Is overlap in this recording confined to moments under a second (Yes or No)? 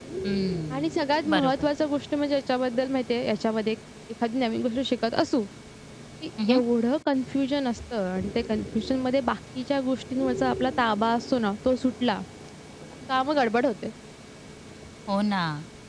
Yes